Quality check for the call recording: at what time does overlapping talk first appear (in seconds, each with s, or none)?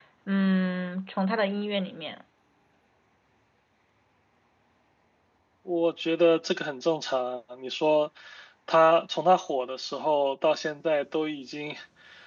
none